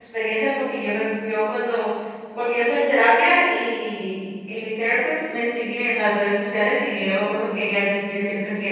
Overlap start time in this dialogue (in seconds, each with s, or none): none